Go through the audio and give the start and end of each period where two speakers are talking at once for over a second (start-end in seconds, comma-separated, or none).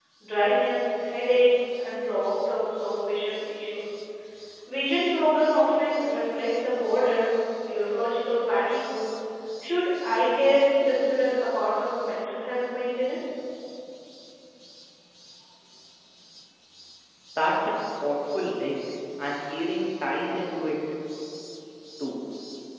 none